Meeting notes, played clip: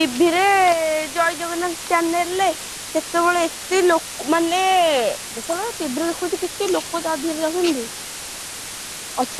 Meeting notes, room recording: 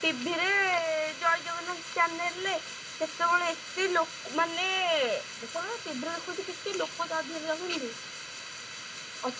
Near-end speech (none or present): none